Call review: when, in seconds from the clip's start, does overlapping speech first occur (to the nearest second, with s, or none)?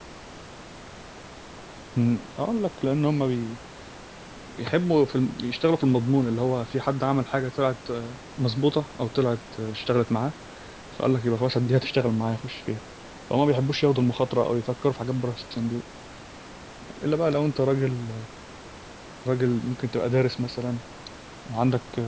none